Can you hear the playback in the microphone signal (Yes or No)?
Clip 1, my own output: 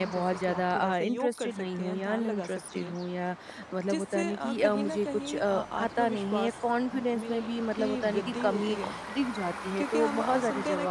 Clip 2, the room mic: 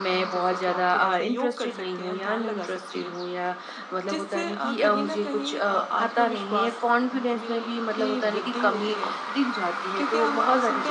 Yes